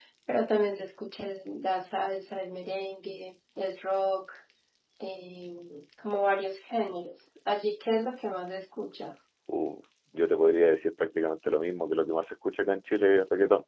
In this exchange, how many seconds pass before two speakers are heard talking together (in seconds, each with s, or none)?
none